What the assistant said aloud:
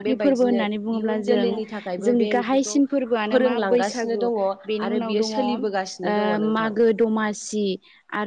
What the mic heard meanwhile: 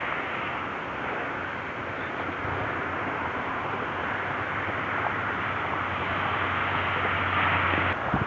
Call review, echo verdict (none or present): none